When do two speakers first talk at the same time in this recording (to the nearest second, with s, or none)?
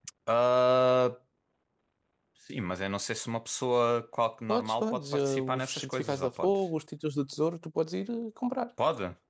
4 s